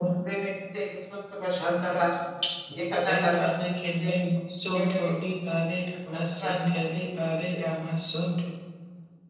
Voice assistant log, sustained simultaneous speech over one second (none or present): none